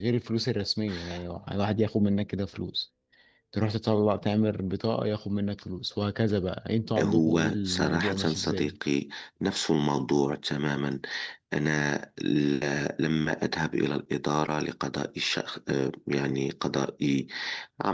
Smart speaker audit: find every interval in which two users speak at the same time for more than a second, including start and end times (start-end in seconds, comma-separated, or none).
7.0-8.7